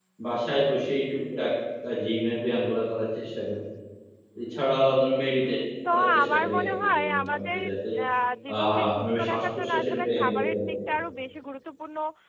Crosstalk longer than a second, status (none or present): present